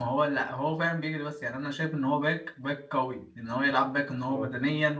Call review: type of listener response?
listening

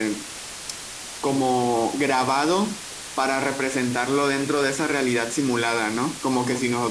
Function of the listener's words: listening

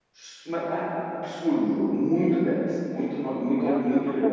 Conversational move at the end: taking over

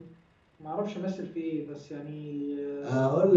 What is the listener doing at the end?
taking over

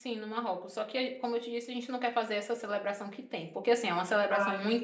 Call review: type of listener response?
listening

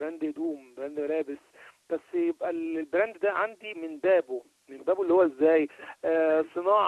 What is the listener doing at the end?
listening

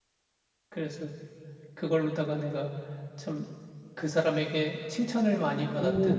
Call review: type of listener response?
taking over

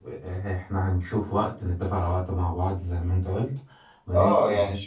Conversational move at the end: taking over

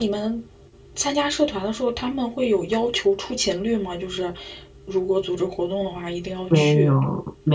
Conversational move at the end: taking over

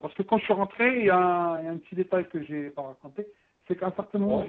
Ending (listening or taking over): listening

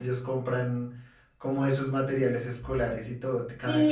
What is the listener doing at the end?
taking over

